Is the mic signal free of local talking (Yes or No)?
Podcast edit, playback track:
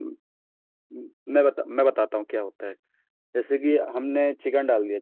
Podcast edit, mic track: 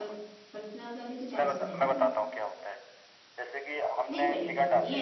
No